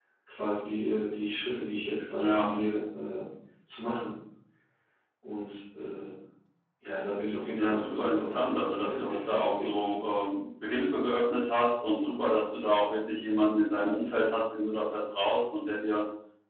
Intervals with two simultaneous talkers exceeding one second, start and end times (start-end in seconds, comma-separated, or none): 7.5-10.0